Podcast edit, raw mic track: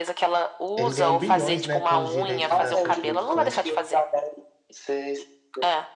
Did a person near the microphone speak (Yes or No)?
Yes